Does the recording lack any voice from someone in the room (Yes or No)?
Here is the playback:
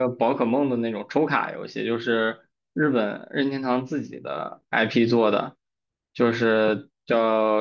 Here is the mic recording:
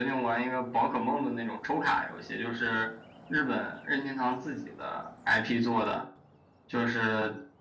Yes